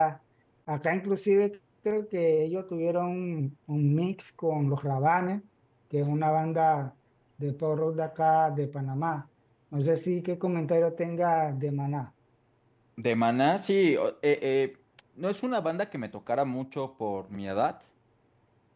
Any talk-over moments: No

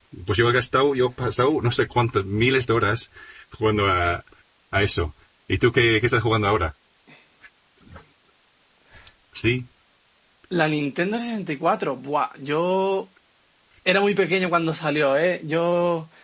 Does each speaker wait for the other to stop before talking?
Yes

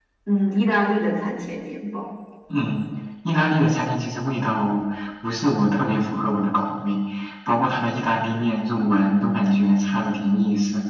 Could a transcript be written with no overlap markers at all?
Yes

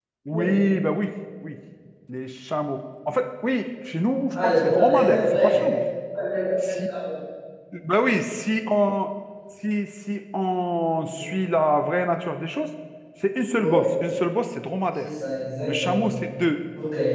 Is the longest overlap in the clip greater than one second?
Yes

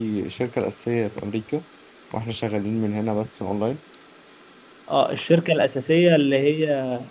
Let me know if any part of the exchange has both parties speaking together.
No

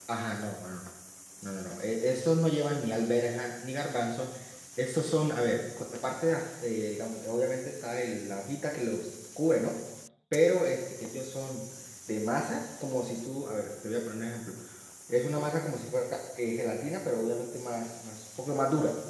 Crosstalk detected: No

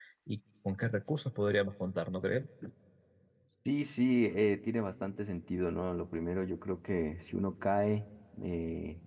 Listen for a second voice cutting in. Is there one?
No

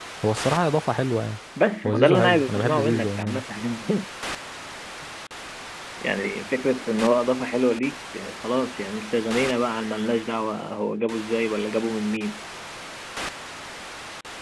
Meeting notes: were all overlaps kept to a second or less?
No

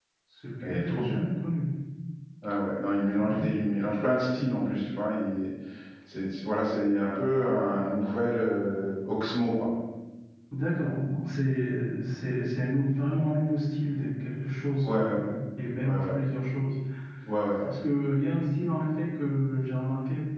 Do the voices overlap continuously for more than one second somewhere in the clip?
No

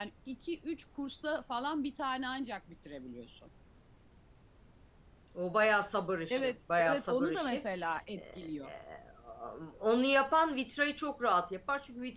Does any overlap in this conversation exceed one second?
Yes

